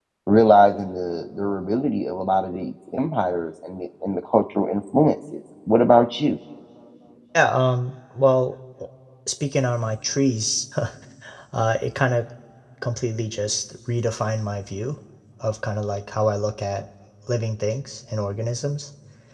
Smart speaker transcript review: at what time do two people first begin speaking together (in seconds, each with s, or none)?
none